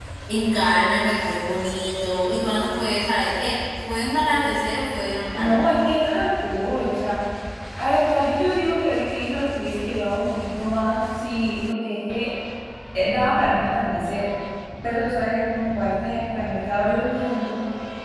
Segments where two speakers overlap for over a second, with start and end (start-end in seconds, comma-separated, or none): none